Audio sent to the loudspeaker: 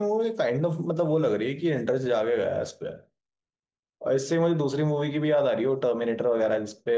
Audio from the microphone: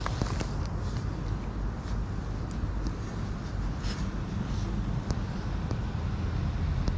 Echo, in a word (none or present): none